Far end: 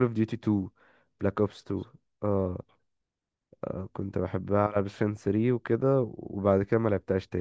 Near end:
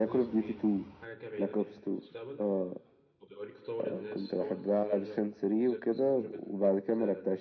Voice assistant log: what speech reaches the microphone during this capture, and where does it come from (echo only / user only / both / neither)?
both